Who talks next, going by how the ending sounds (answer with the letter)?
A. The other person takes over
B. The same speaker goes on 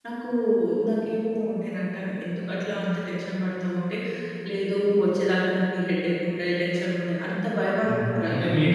A